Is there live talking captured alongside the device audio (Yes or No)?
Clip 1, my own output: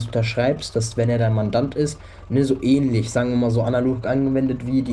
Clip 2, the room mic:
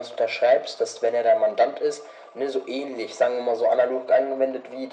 No